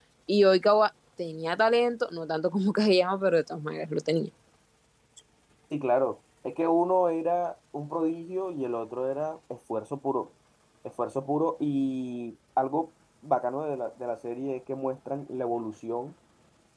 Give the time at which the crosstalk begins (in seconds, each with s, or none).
none